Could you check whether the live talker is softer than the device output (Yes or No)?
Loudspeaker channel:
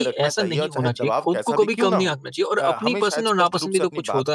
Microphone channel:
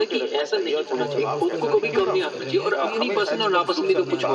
Yes